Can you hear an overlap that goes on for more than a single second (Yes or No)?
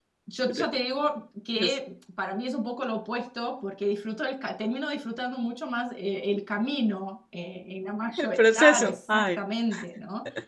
Yes